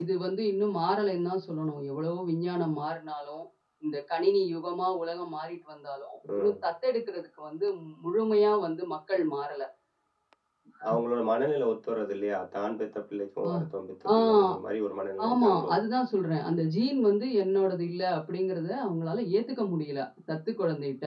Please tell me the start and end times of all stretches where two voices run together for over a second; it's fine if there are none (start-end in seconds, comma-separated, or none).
none